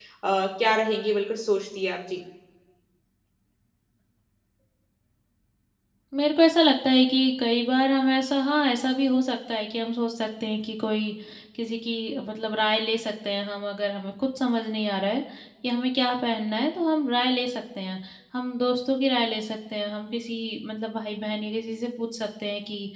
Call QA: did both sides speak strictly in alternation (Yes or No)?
Yes